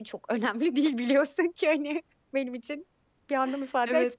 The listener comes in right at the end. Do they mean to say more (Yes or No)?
Yes